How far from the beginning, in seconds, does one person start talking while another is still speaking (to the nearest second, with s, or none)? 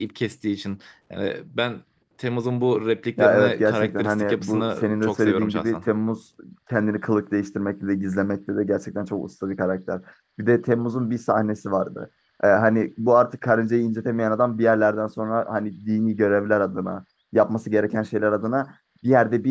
3 s